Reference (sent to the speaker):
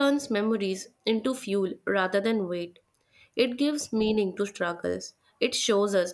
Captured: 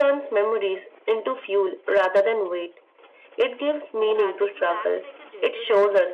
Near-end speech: present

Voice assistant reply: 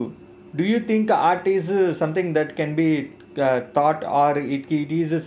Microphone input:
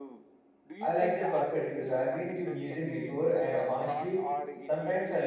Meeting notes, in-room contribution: present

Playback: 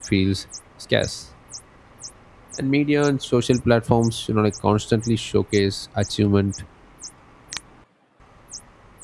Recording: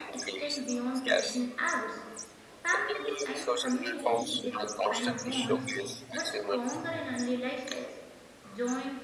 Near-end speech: present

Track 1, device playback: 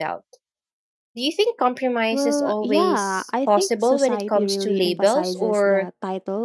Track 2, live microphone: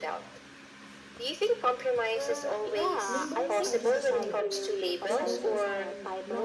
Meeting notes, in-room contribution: present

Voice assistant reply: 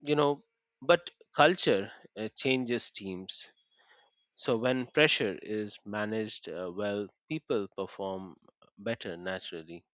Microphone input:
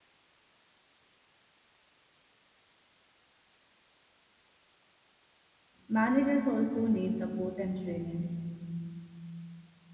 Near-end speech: present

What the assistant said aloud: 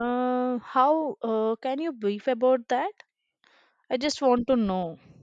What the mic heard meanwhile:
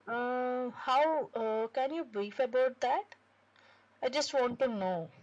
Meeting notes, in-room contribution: none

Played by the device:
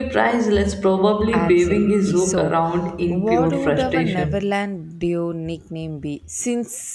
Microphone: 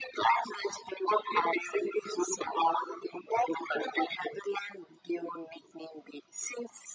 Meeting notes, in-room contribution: none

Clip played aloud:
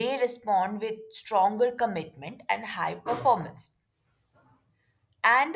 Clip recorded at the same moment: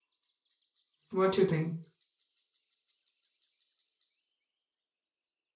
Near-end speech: present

